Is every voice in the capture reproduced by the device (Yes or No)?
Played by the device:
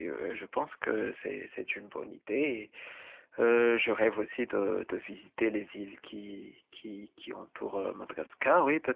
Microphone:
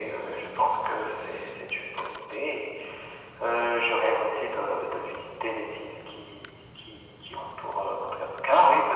Yes